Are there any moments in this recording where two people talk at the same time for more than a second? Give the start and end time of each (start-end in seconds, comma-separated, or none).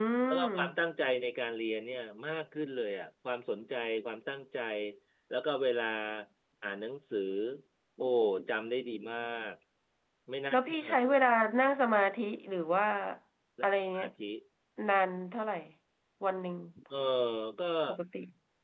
none